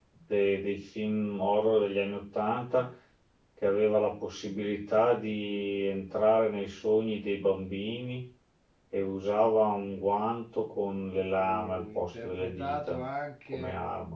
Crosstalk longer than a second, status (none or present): present